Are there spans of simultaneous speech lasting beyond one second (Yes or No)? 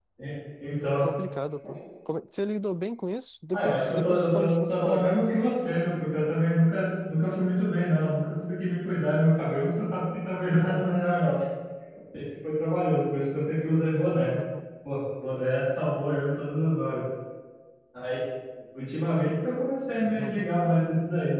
Yes